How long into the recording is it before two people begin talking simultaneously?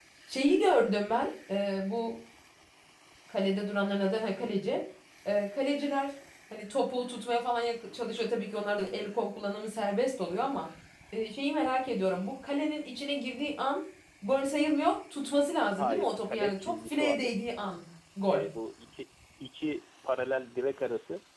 16 s

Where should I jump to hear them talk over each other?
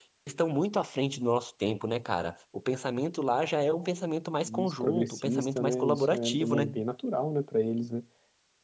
4 s

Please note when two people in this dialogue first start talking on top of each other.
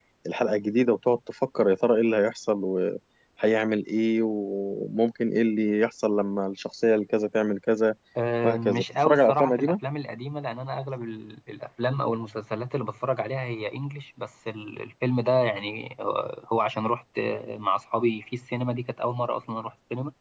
8 s

